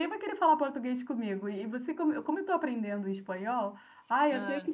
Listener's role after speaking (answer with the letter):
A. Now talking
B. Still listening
B